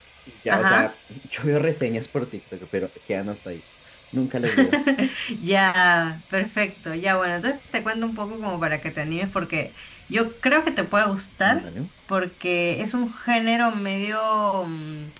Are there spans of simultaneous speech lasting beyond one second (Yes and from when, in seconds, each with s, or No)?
No